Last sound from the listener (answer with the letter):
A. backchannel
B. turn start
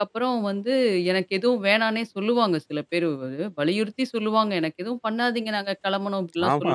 B